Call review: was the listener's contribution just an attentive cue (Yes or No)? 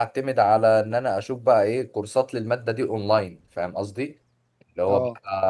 Yes